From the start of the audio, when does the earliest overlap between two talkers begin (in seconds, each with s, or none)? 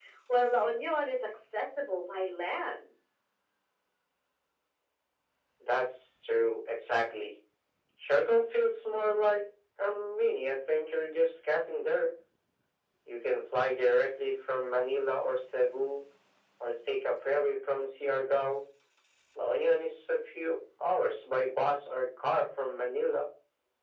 none